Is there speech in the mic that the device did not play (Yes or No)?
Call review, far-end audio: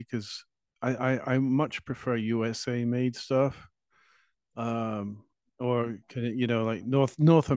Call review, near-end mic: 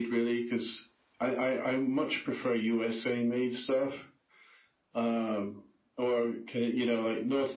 No